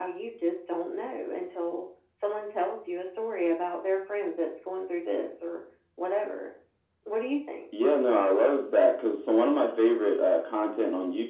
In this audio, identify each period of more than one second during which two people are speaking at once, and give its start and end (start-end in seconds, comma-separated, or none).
none